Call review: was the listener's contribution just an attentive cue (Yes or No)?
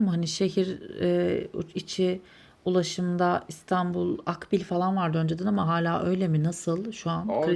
No